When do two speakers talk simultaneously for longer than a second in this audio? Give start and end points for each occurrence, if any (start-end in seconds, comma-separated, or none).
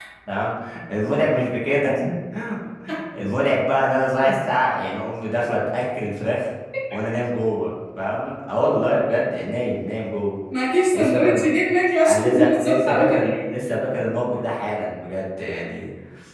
12.1-13.5